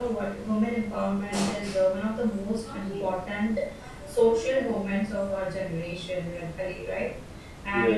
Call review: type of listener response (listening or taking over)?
listening